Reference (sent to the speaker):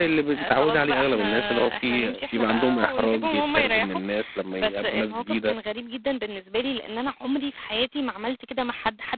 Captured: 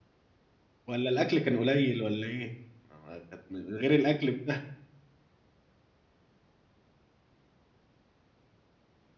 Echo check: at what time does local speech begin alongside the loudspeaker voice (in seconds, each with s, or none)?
0.9 s